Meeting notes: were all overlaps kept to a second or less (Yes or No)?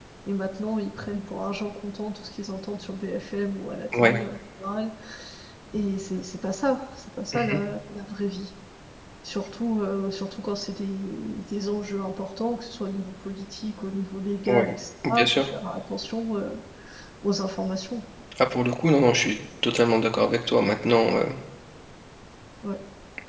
Yes